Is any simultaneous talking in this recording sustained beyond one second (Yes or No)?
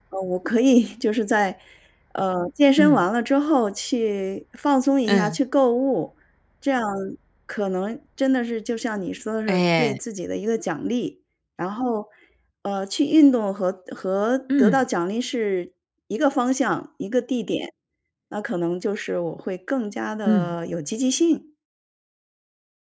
No